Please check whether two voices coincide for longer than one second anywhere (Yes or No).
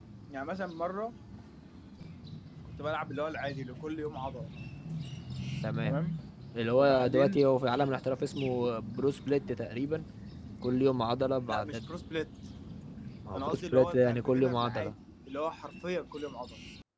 Yes